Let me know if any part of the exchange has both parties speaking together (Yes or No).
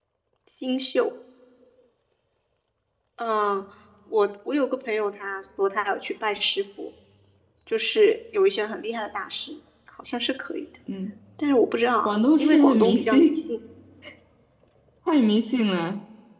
Yes